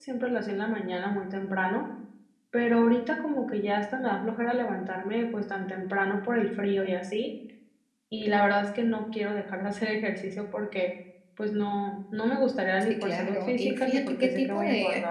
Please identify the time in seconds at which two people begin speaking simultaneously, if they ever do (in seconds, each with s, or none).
12.9 s